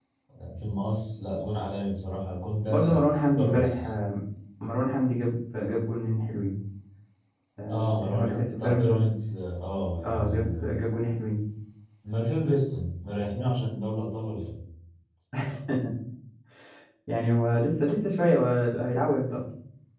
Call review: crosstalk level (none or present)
present